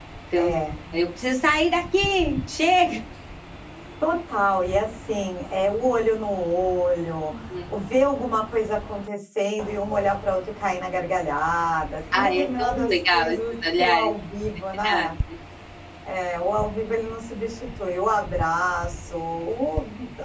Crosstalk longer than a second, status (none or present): present